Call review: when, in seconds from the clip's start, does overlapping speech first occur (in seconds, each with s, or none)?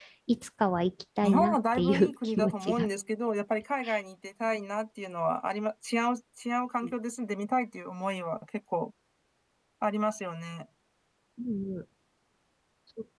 1.2 s